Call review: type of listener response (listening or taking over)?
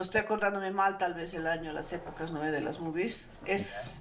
listening